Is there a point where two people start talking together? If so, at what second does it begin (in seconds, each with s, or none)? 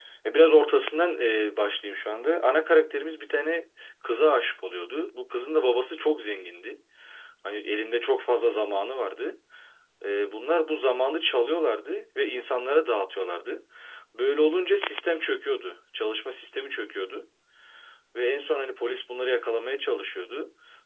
none